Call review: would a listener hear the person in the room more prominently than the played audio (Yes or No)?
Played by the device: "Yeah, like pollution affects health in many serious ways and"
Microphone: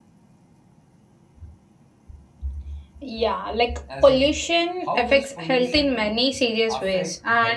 No